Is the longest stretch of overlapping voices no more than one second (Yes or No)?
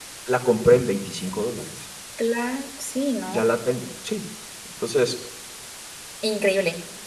Yes